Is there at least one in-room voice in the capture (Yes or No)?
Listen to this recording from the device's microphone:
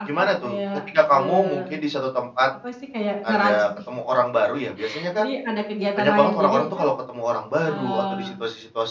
Yes